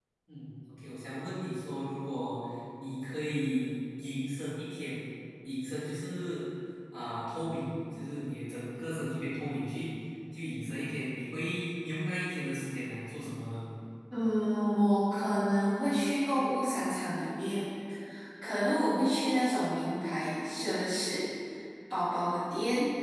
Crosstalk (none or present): none